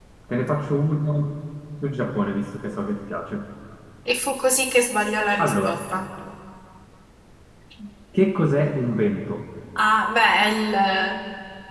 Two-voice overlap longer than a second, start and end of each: none

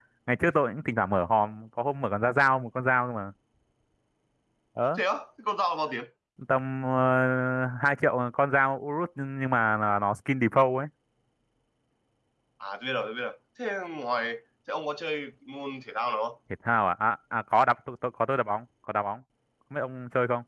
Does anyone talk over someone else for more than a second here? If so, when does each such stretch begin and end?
none

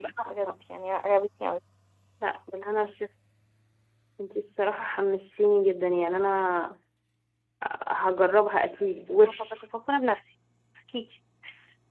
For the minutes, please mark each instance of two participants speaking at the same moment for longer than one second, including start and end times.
none

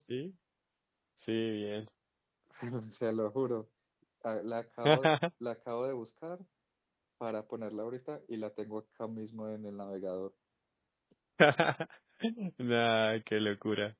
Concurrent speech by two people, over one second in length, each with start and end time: none

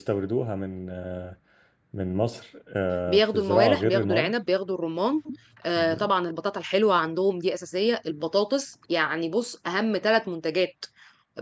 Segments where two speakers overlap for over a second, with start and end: 3.1-4.3

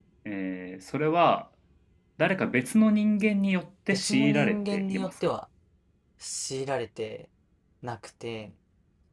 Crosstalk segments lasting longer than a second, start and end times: 3.9-5.1

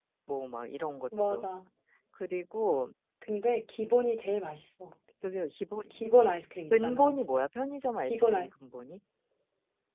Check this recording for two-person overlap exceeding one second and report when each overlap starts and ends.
none

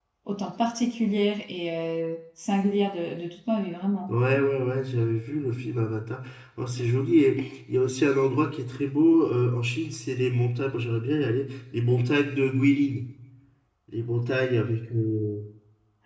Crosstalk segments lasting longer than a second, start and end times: none

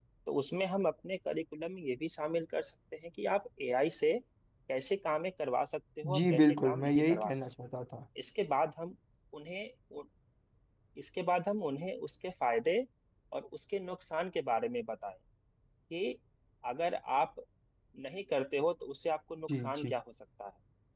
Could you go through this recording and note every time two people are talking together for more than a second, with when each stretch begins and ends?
6.2-7.5

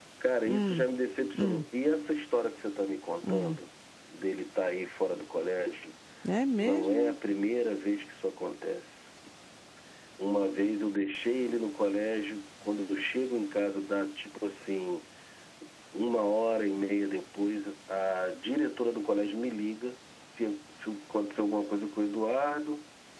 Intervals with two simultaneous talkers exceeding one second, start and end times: none

